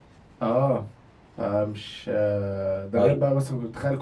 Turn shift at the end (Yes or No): No